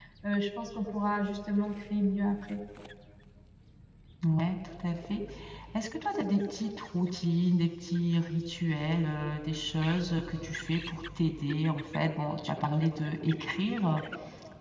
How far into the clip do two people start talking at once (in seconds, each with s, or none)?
none